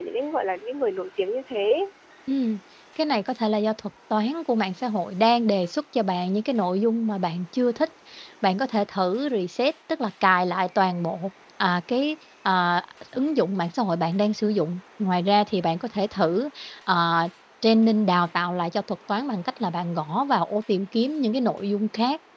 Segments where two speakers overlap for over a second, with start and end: none

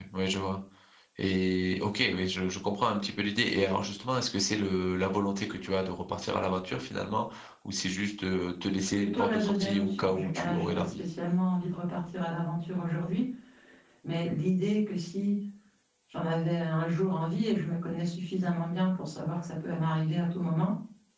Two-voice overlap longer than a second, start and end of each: 8.9-11.0

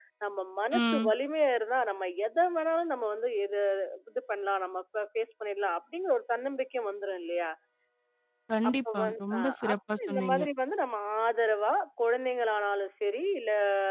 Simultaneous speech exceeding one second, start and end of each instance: 8.7-10.4

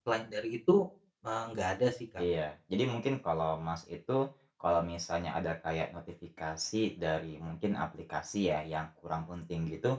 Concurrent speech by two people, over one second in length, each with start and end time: none

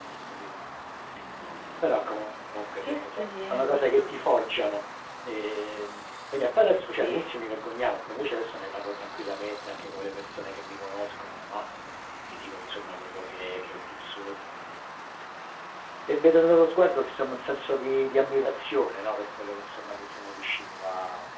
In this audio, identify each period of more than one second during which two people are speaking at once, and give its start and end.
2.8-4.1

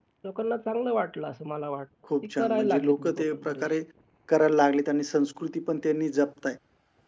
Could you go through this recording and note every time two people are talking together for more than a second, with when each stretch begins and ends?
2.2-3.6

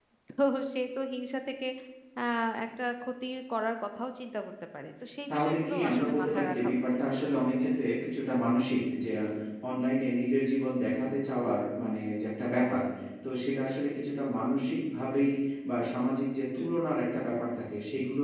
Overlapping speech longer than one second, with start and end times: 5.3-7.0

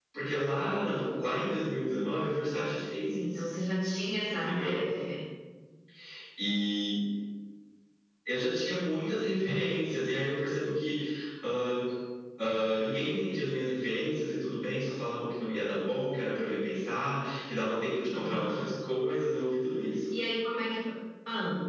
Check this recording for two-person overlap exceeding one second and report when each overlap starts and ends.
none

